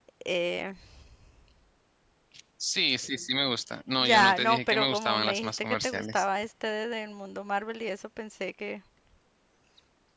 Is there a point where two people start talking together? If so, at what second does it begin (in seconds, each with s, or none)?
4.0 s